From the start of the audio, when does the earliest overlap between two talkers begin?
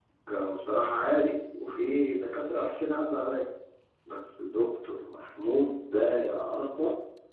none

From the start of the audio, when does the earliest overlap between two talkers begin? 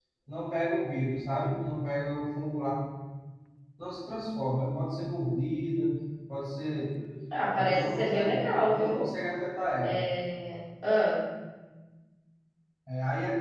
8 s

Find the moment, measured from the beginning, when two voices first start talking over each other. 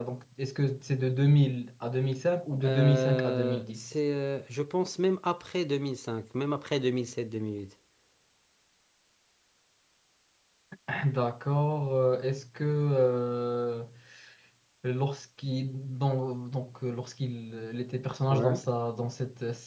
3 s

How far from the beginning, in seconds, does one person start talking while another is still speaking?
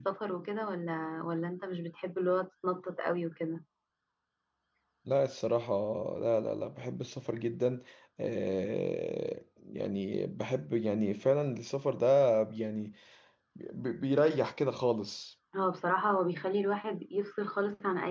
none

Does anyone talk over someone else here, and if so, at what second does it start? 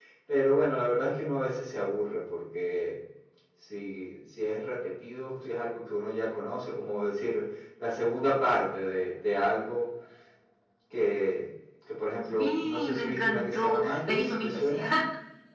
12 s

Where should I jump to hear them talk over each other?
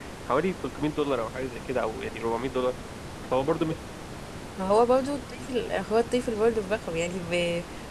none

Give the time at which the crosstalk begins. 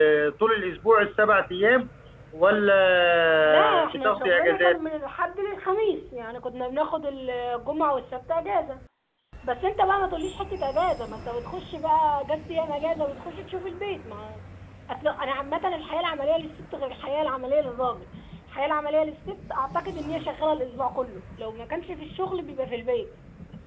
3 s

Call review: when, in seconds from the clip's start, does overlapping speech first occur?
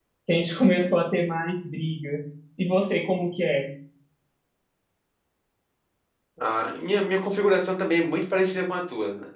none

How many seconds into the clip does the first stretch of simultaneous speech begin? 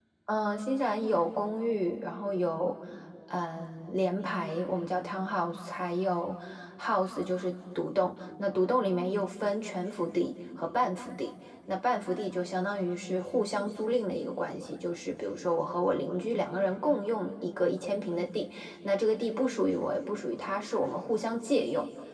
none

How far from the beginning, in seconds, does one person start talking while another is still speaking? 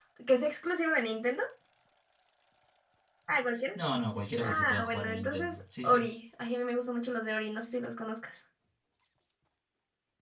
4 s

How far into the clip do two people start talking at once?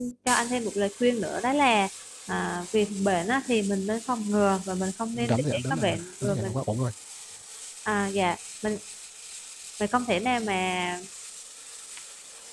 5 s

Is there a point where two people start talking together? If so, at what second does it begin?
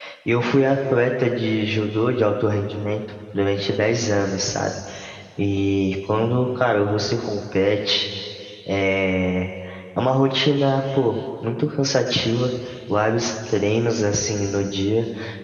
none

